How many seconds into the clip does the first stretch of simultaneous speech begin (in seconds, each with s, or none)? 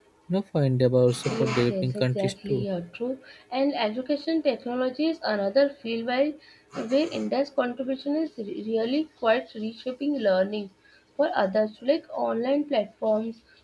1.3 s